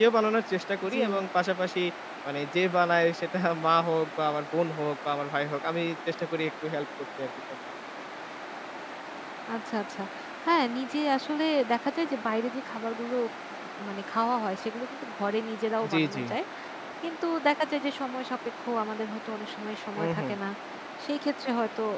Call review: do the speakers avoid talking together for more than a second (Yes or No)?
Yes